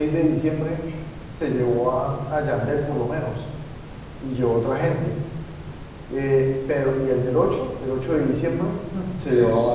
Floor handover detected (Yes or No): No